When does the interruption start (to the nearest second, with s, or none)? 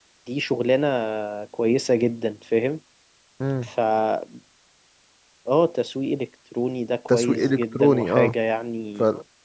7 s